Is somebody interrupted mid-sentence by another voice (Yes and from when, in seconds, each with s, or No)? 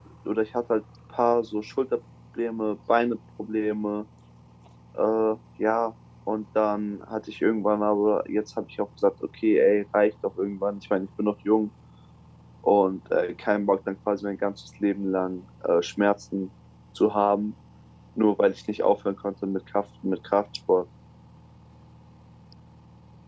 No